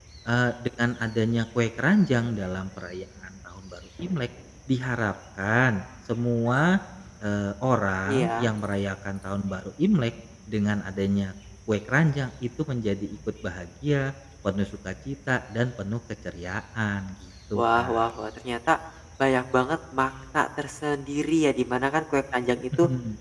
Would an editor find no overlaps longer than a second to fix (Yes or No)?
Yes